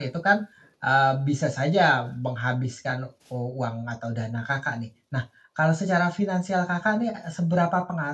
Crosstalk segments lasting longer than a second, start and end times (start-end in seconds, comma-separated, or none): none